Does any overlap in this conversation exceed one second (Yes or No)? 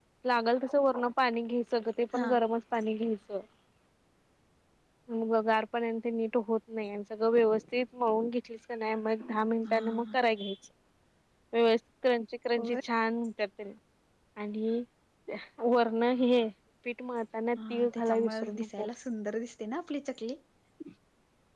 Yes